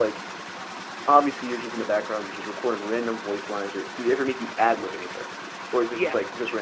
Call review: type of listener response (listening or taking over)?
taking over